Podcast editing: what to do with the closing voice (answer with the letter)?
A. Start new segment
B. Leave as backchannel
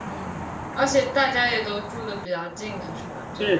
A